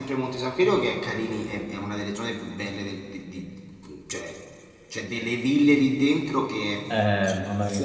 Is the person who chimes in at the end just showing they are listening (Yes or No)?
No